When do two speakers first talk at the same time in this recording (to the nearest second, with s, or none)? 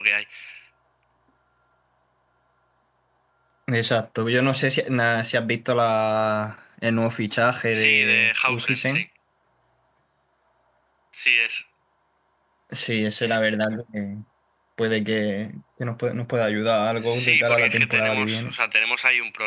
8 s